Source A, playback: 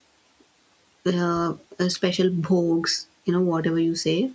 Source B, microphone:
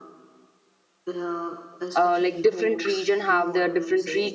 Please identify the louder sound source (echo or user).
user